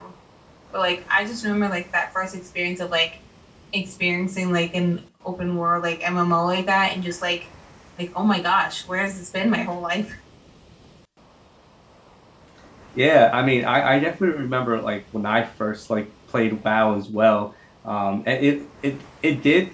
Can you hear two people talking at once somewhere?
No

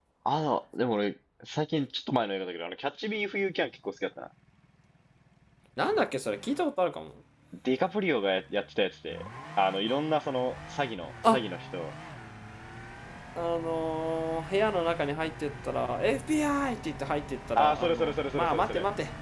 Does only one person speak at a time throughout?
No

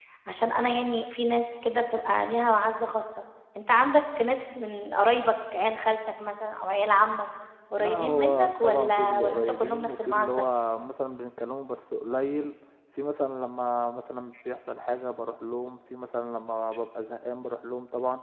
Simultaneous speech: Yes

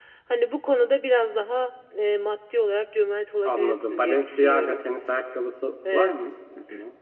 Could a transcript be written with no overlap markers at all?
No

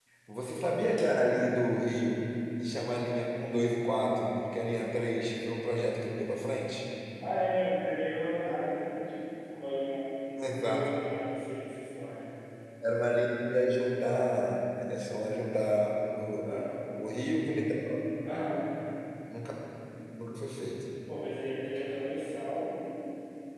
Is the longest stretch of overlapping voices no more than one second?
Yes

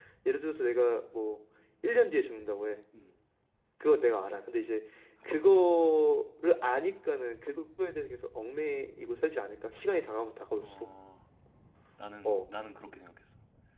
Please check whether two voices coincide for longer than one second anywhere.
No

